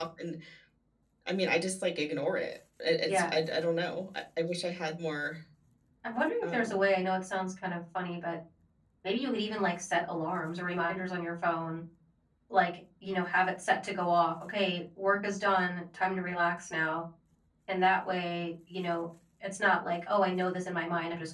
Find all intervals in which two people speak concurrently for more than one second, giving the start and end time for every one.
none

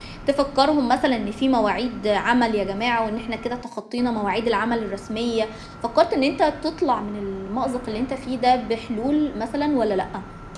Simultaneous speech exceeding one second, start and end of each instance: none

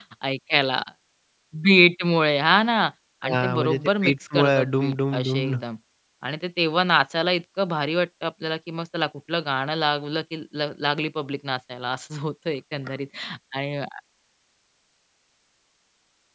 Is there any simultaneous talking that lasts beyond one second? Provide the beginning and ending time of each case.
3.2-5.5

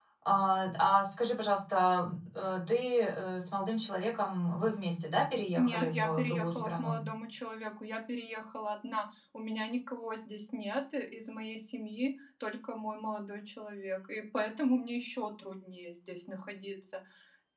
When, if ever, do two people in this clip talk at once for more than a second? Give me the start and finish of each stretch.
5.6-7.0

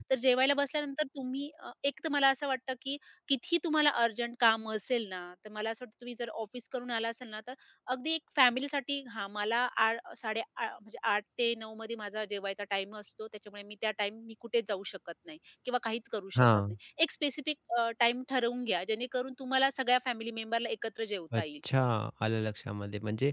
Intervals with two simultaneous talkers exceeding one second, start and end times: none

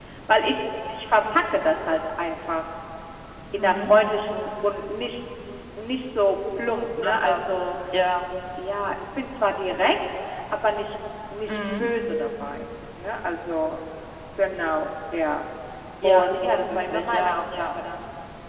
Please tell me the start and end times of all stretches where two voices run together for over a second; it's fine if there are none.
16.0-17.7

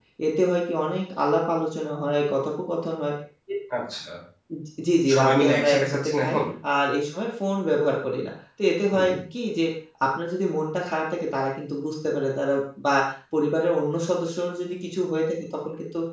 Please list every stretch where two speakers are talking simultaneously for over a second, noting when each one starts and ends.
5.1-6.4

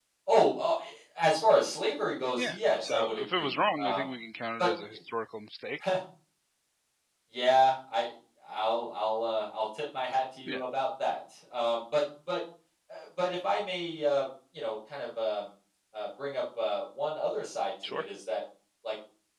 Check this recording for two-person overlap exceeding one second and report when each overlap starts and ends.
2.4-4.0

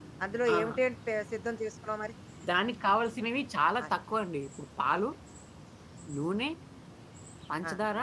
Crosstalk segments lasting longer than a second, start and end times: none

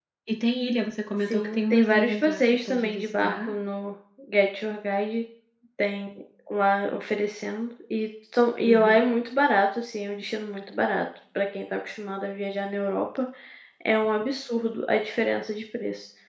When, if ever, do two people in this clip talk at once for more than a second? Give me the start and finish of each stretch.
1.3-3.5

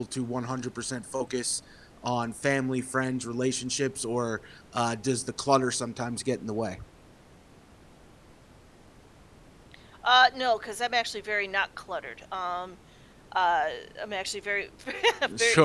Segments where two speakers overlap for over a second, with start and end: none

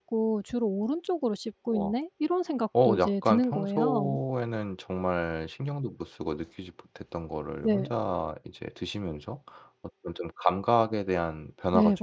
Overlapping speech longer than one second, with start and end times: 2.8-4.2

